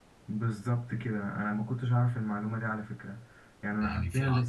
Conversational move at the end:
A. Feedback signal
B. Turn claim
B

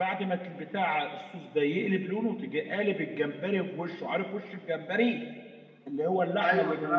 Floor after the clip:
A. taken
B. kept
B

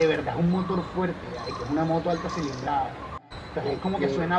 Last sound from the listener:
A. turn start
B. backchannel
B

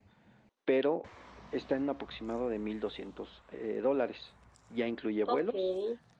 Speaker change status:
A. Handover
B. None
B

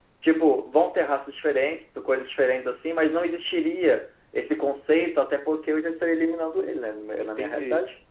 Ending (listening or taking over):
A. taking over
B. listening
A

